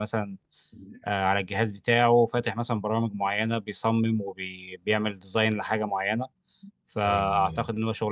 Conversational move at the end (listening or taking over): listening